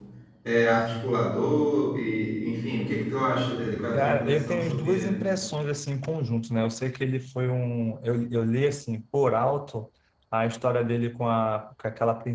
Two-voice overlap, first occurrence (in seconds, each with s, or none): 3.9 s